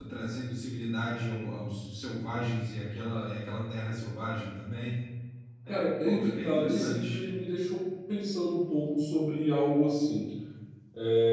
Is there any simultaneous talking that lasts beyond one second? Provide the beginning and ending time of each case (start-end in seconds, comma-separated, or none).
5.7-7.2